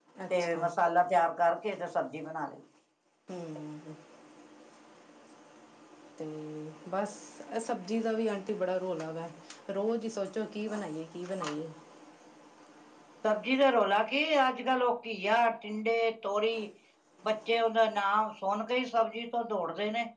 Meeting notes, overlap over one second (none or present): none